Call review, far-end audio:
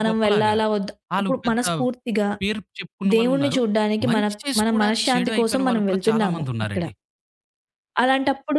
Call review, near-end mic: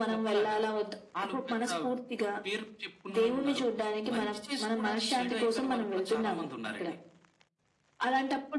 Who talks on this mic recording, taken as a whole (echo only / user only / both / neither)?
echo only